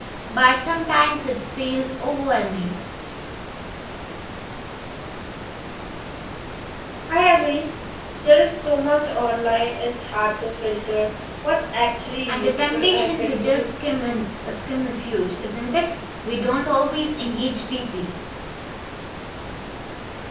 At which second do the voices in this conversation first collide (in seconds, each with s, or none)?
12.3 s